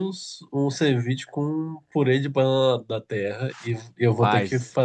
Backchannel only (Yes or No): Yes